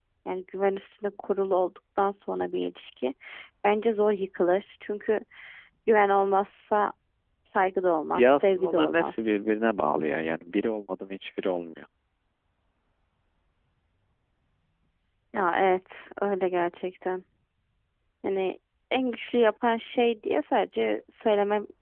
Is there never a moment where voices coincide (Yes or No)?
No